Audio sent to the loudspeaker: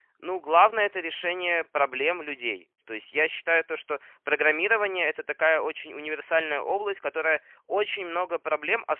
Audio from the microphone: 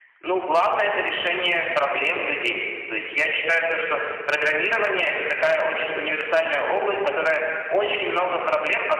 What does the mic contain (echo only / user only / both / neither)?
echo only